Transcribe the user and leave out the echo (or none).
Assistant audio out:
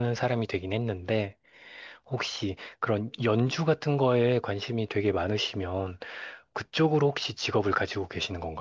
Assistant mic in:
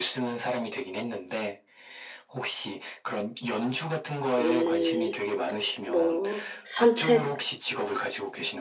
음, 뭐, 산책을